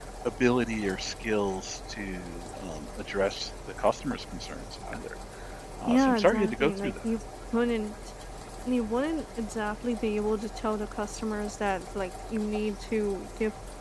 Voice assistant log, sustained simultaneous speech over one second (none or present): present